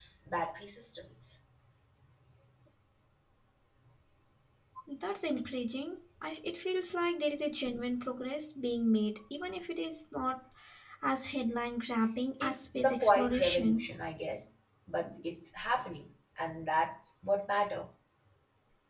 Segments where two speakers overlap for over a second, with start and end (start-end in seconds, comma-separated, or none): 12.4-13.8